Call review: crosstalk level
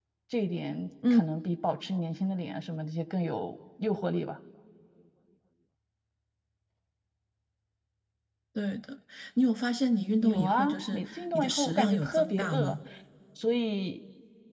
present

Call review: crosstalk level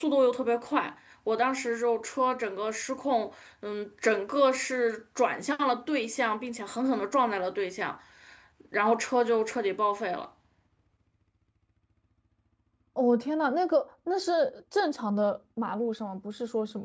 none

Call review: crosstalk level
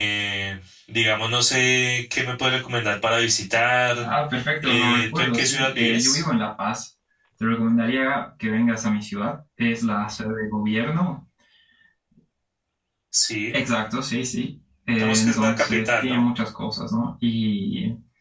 present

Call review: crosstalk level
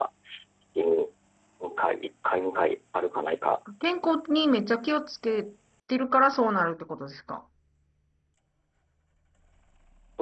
none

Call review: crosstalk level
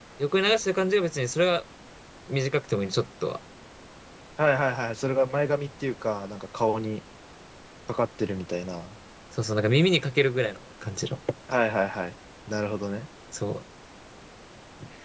none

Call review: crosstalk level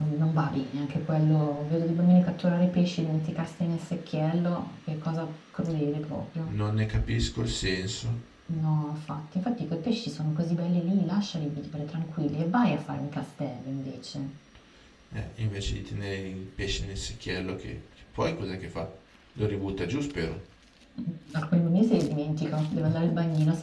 none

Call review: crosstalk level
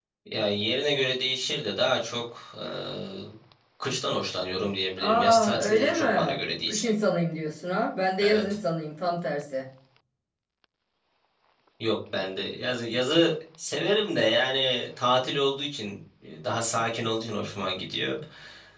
present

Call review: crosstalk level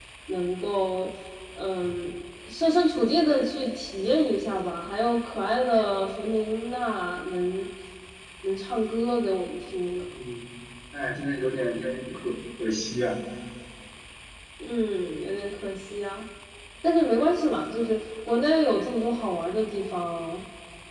none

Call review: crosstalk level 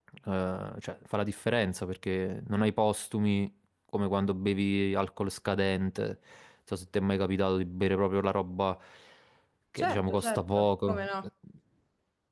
present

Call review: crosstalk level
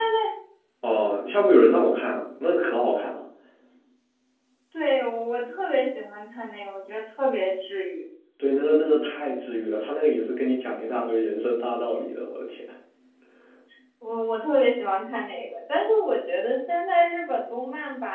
none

